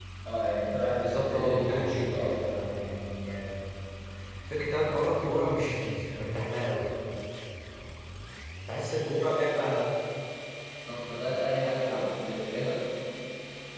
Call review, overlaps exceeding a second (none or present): present